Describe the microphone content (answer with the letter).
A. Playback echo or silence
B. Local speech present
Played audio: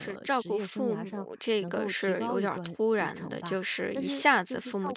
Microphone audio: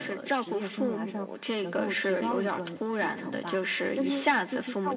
A